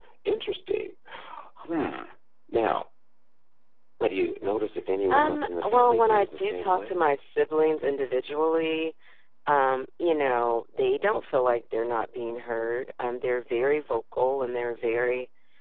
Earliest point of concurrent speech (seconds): 5.1 s

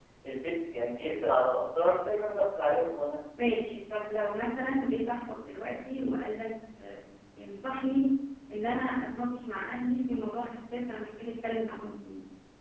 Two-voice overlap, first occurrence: none

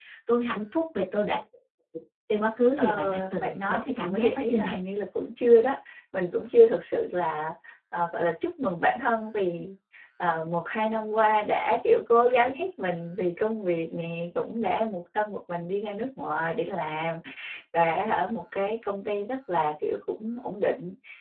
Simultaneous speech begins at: 2.8 s

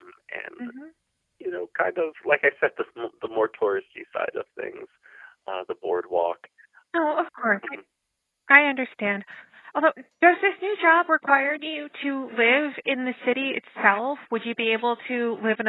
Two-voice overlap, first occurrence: none

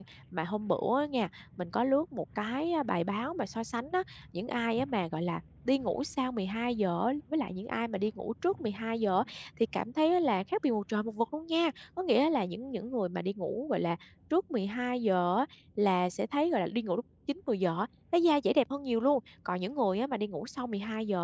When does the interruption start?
none

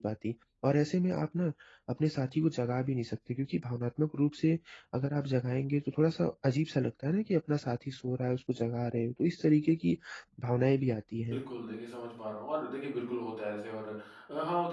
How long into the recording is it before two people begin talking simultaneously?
none

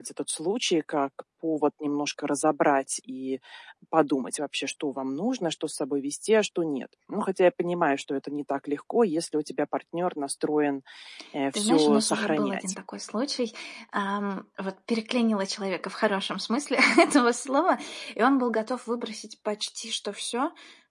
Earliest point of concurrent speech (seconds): 11.5 s

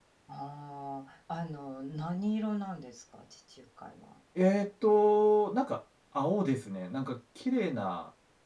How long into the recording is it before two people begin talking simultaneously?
none

